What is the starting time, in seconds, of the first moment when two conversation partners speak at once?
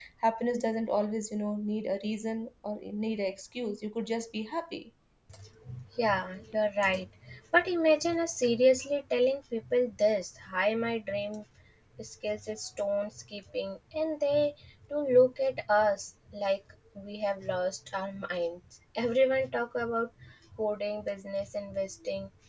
none

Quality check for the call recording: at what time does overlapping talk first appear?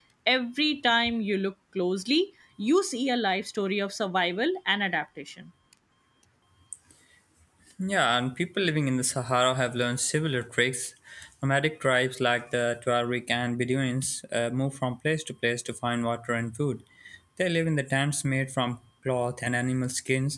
none

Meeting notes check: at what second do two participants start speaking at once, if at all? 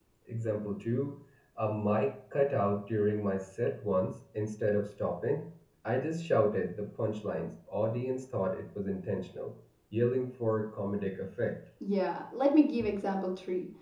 none

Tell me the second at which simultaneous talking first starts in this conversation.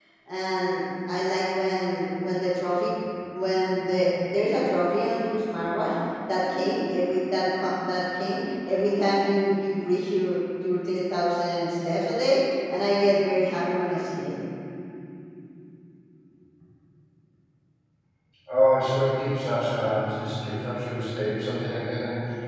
none

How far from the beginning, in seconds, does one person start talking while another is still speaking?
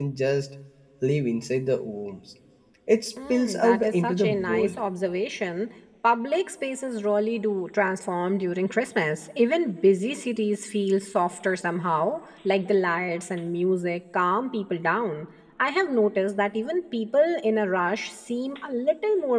3 s

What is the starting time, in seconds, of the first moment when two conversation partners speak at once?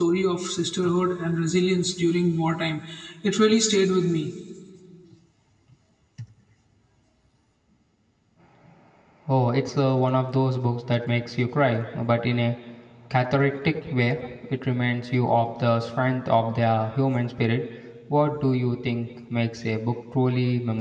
none

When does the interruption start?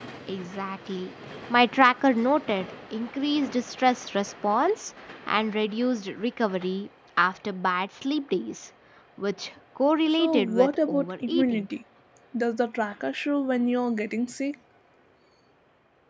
10 s

